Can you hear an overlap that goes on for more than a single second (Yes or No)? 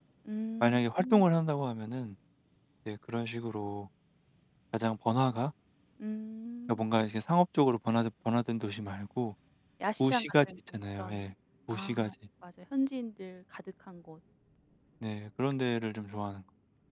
Yes